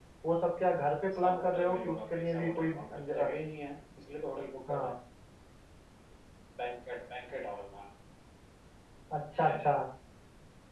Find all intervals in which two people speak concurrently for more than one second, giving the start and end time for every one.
1.1-3.3

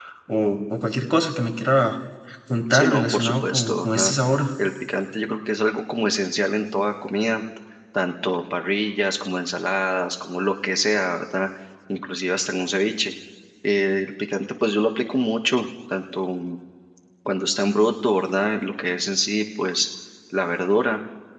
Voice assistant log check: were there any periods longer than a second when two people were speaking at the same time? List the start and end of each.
2.7-4.1

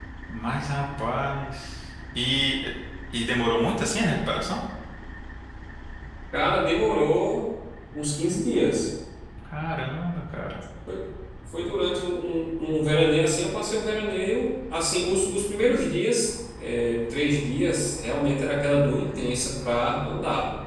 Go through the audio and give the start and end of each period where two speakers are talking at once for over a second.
none

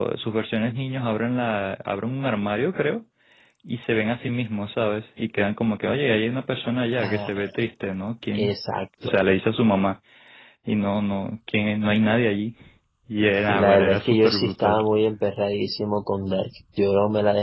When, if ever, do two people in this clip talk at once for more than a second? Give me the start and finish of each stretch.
13.4-14.8

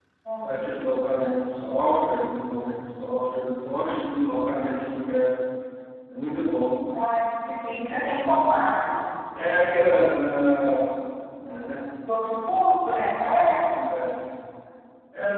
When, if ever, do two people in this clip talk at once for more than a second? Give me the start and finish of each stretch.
none

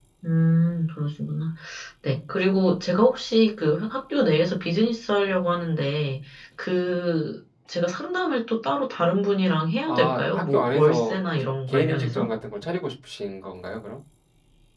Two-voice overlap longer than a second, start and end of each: 9.9-12.2

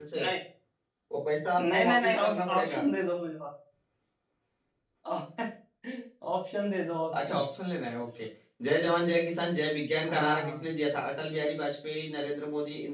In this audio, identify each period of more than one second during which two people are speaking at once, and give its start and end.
1.6-2.8

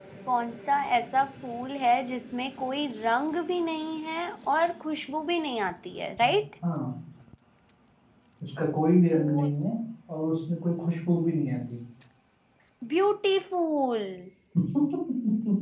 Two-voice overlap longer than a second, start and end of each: none

